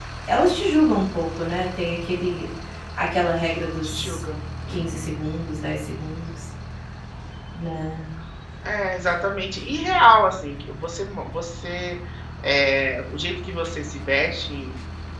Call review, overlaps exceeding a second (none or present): none